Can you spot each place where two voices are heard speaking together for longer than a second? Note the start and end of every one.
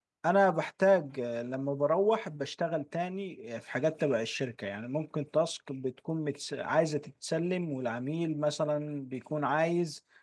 none

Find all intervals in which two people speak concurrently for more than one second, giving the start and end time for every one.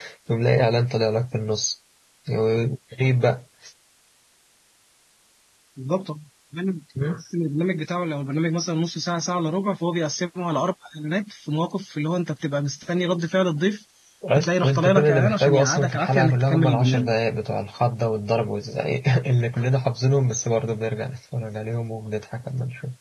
14.3-17.1

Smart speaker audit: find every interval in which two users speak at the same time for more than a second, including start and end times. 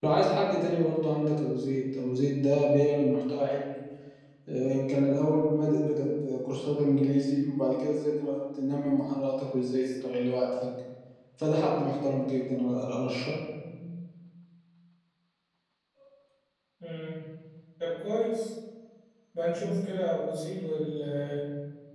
none

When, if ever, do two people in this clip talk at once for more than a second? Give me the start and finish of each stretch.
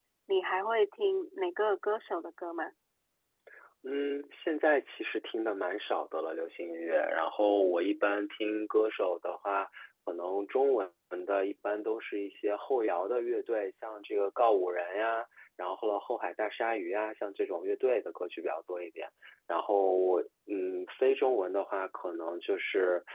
none

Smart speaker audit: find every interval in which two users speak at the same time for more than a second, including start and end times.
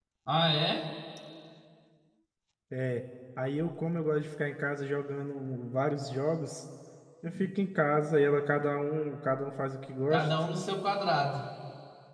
none

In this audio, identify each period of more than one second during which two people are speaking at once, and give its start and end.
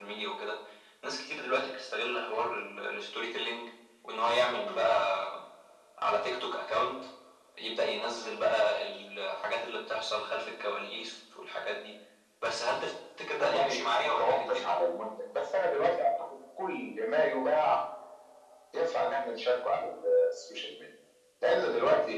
13.4-14.7

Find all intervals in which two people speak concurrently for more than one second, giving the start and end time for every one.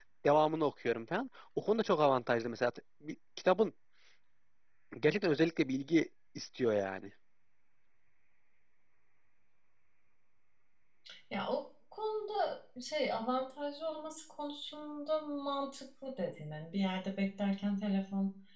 none

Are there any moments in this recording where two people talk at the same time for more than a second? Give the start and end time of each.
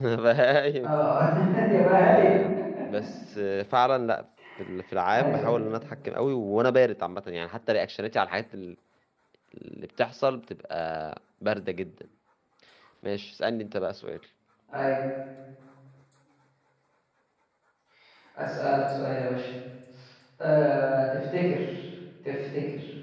none

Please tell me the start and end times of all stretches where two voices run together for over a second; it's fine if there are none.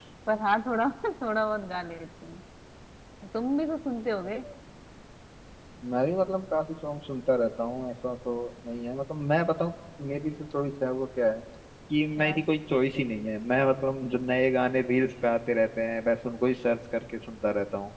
none

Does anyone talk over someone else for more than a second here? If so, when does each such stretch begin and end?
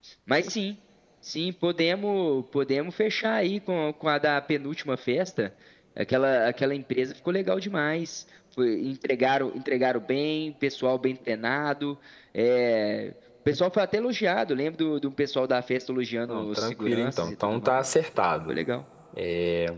16.3-17.9

